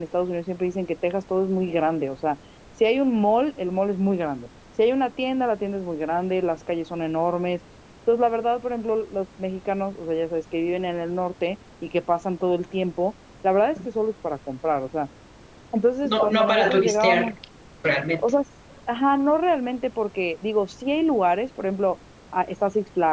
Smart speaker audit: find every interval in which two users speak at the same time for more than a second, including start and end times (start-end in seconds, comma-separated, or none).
16.0-17.3